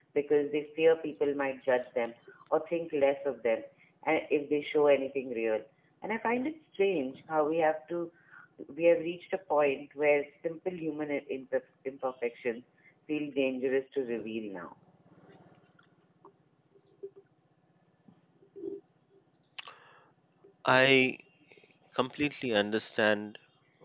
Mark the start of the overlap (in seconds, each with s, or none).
none